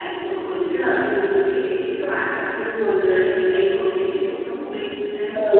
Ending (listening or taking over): taking over